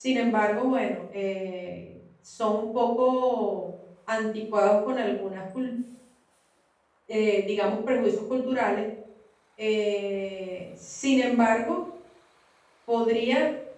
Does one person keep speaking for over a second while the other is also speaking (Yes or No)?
No